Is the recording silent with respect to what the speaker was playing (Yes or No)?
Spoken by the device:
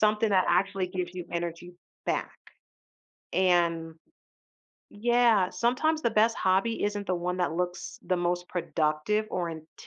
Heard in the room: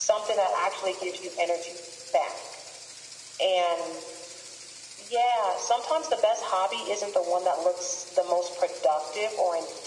No